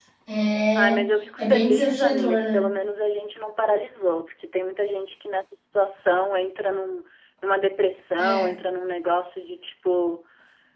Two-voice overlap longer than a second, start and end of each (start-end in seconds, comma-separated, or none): 1.4-2.6